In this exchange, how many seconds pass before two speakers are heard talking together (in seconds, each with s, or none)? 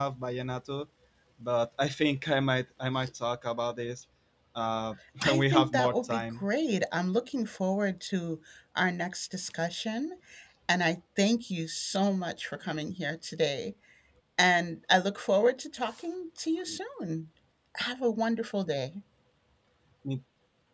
5.2 s